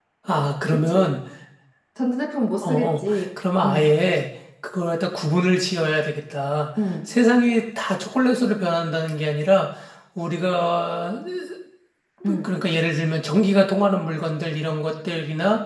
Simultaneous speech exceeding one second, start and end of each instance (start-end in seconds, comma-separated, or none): 2.6-4.0